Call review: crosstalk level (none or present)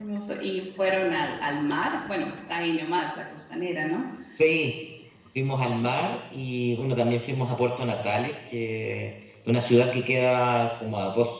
none